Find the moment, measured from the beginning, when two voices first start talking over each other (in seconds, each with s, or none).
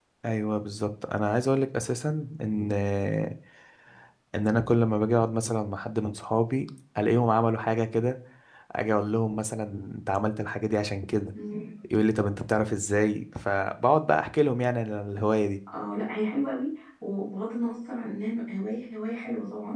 none